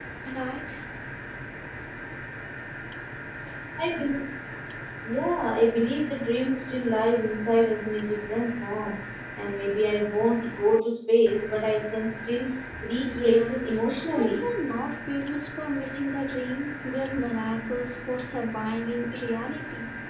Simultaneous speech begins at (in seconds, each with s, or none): 13.0 s